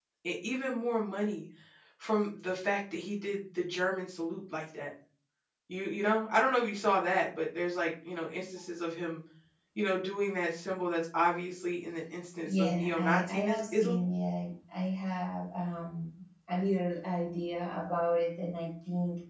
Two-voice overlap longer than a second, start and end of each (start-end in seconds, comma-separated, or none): 12.4-14.0